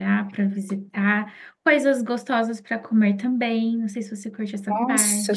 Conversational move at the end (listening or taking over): taking over